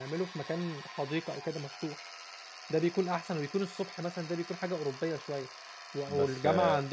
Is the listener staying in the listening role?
Yes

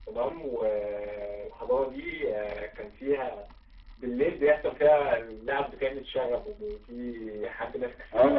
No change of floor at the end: No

